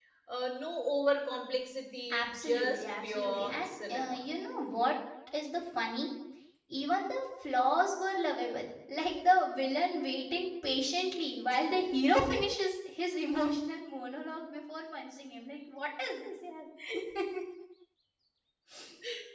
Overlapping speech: Yes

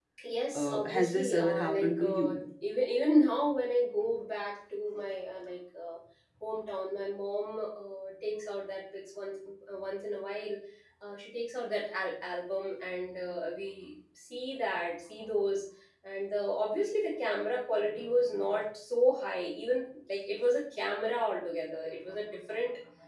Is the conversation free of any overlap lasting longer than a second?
No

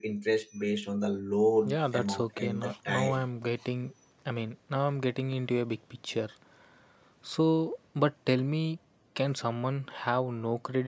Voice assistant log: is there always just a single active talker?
No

